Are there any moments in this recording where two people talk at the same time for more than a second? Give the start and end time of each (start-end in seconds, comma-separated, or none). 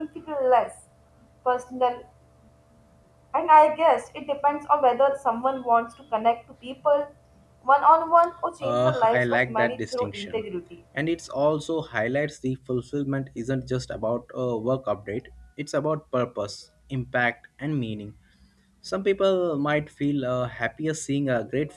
8.6-10.4